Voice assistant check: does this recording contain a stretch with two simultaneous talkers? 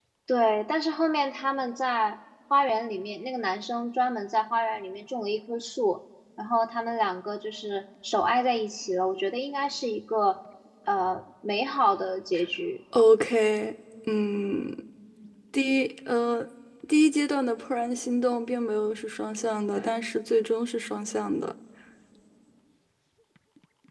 No

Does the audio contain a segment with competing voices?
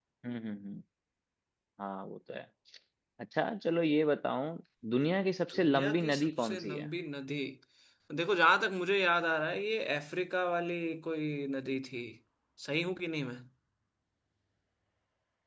Yes, from 5.5 s

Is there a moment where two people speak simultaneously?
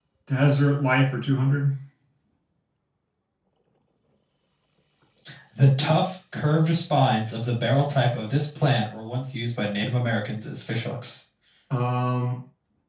No

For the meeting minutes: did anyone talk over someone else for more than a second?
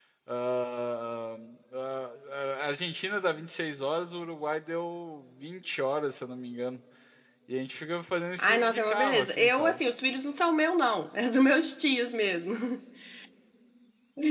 Yes, from 8.4 s

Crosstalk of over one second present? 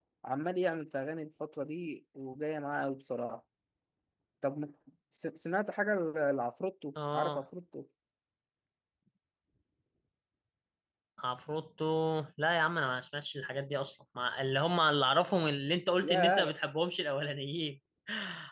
No

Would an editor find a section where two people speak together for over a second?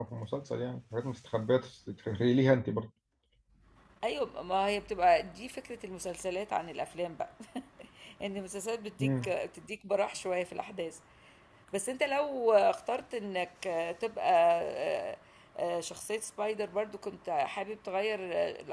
No

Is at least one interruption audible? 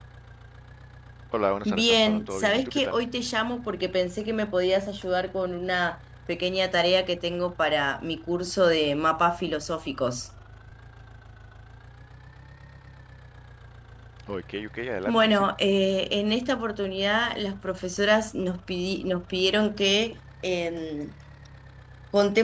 Yes, from 1.6 s

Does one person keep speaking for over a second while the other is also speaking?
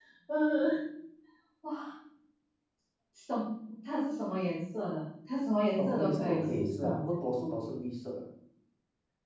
Yes, from 5.8 s

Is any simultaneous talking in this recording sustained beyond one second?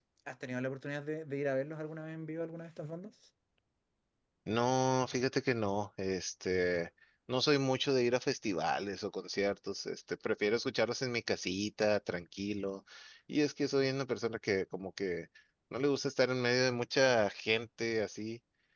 No

